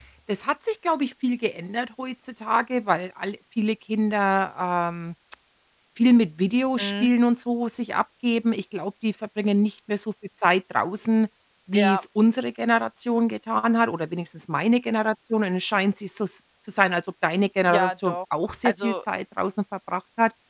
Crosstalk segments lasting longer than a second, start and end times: none

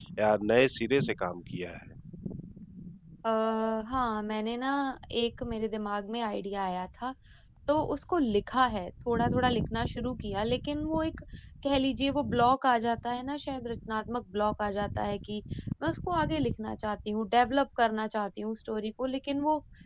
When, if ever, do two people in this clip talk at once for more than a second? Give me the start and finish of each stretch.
none

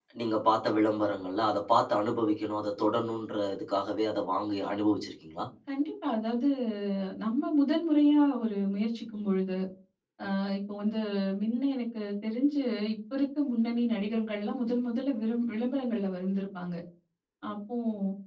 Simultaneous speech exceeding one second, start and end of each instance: none

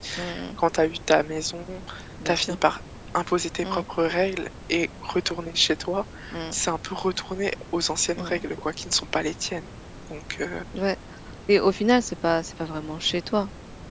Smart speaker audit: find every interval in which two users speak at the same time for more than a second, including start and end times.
none

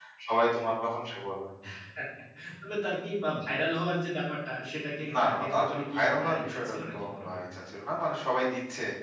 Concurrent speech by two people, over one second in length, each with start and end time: 5.2-7.4

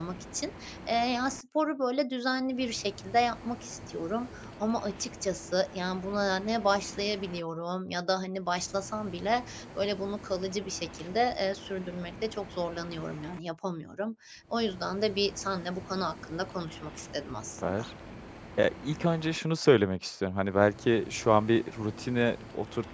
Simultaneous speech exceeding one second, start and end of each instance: none

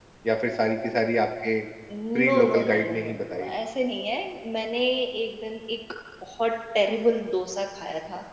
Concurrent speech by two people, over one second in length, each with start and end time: 2.2-3.5

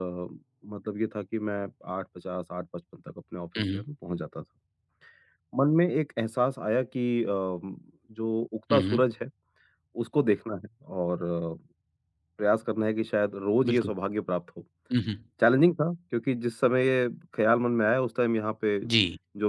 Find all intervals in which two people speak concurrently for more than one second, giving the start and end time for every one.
none

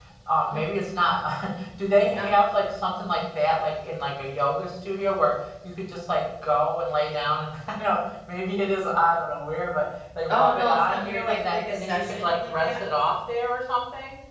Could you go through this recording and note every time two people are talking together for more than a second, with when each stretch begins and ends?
10.3-12.7

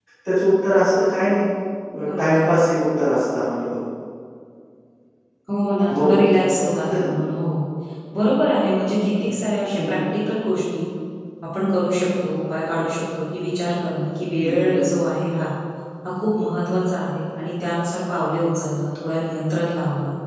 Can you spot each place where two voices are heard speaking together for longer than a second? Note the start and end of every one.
none

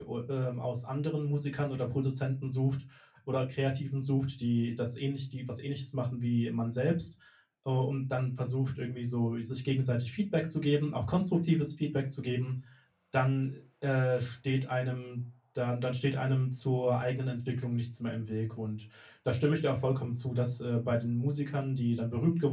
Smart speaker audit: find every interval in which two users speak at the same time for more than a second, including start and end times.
none

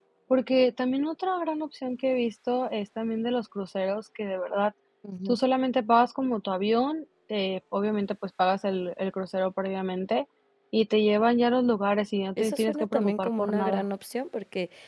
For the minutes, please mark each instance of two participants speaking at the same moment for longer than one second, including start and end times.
12.4-13.8

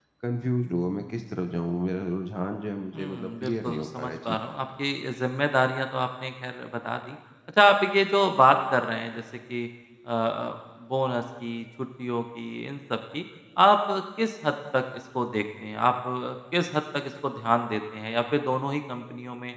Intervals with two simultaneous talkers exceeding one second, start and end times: 2.9-4.4

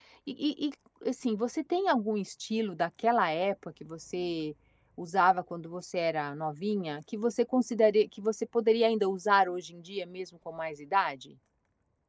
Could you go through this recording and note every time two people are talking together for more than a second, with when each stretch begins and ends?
none

